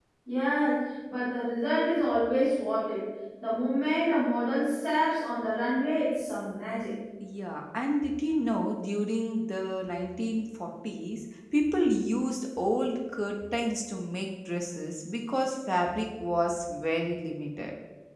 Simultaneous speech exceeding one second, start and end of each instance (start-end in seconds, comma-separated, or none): none